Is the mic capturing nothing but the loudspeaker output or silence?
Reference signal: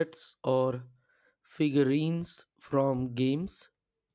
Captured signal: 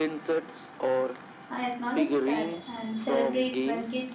No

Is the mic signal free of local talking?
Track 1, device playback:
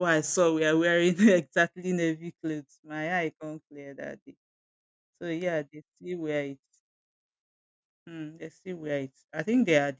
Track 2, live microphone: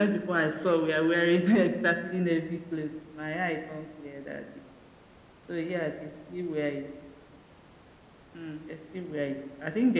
Yes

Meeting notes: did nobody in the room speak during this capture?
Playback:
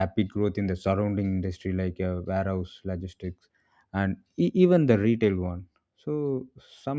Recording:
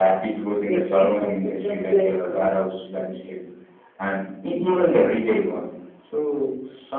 No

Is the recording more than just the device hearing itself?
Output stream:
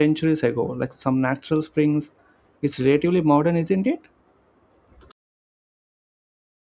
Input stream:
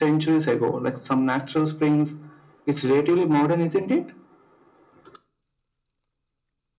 No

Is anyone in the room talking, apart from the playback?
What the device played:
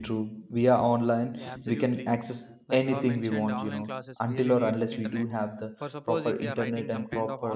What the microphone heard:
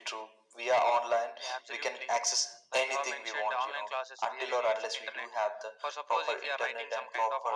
No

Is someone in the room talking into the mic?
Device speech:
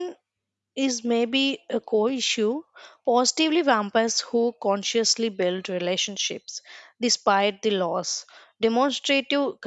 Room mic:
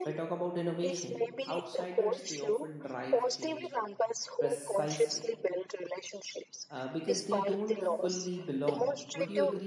Yes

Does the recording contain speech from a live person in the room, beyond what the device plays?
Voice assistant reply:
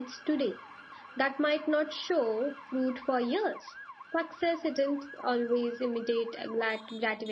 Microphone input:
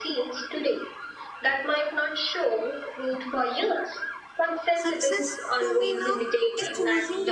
Yes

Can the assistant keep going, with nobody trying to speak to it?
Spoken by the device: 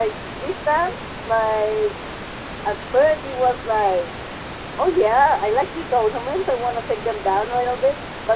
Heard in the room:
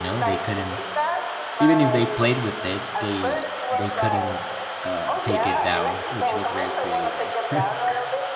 No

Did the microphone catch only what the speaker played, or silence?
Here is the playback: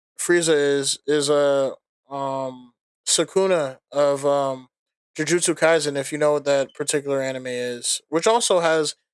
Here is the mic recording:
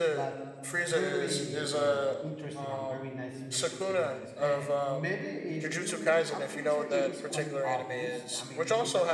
No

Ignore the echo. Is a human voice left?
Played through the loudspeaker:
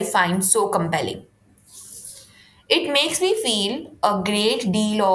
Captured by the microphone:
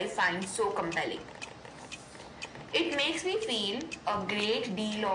No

